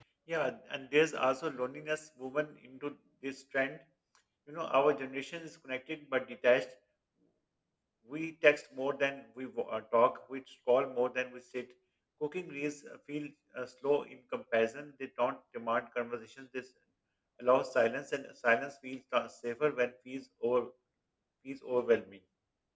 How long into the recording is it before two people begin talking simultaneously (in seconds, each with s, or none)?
none